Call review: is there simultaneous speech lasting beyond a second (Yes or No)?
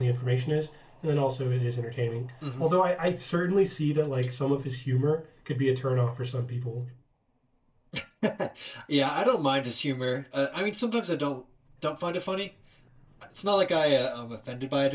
No